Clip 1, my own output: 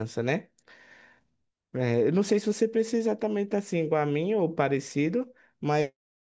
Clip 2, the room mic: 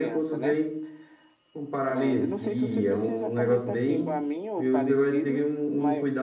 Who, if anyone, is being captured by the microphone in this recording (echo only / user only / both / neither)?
both